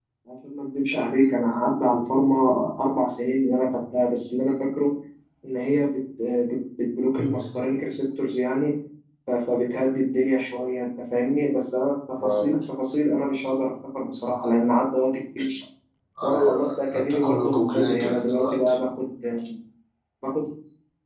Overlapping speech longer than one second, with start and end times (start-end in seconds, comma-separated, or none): 16.2-18.8